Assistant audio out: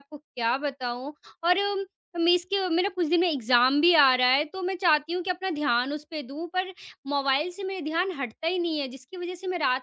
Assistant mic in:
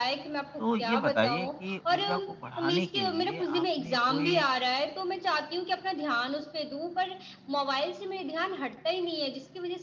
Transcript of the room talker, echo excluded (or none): तो ये बताइए कि ऊर्जा को बढ़ाने के लिए आपने कोई